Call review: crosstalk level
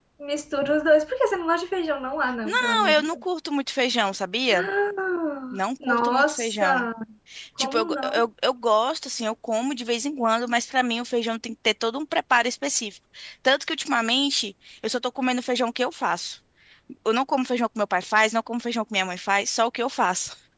present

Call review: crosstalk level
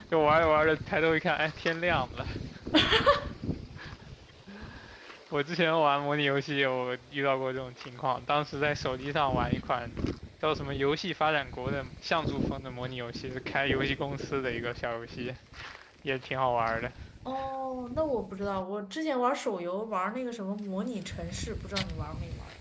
none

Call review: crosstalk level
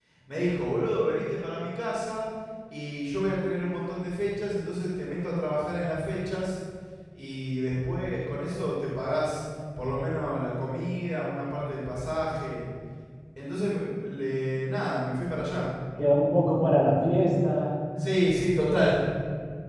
none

